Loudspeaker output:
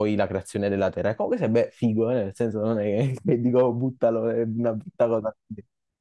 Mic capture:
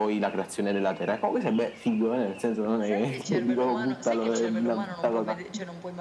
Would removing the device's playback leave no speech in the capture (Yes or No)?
No